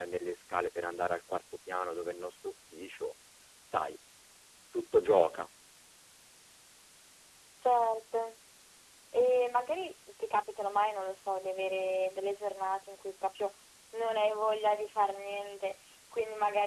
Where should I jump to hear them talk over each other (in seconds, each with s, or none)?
none